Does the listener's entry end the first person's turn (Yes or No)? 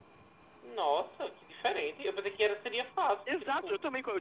Yes